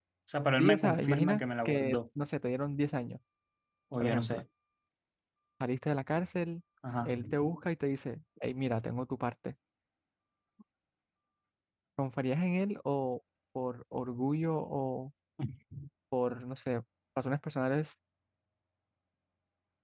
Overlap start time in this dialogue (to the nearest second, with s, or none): 1 s